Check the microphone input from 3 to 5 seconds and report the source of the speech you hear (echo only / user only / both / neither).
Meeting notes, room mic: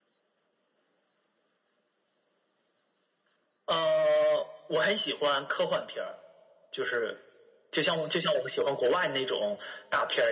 echo only